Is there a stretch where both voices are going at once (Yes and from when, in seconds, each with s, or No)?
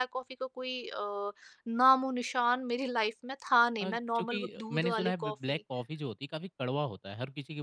Yes, from 3.8 s